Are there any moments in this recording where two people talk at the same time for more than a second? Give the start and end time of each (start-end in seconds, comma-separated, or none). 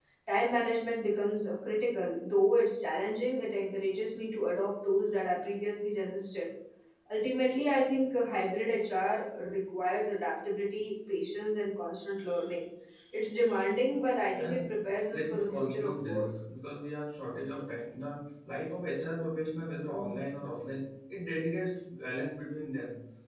14.4-16.3